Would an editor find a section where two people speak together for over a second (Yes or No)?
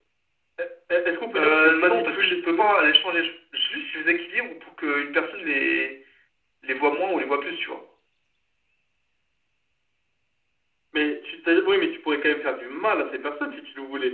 Yes